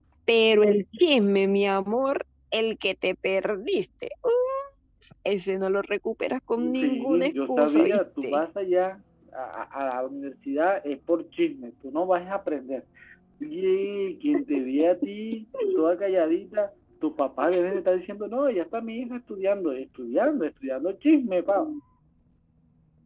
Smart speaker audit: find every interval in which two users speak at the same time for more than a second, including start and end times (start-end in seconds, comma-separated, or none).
6.8-8.4